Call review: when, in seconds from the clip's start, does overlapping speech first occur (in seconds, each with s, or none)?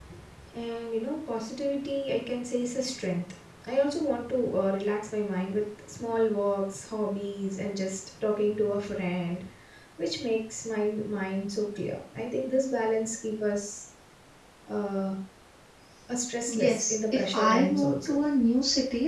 16.6 s